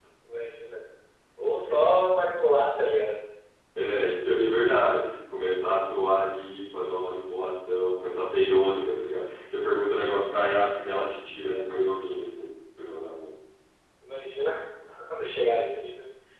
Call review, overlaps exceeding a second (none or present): none